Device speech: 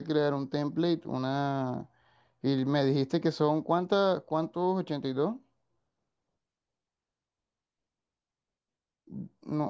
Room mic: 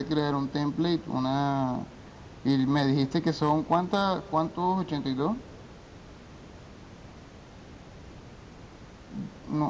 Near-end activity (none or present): none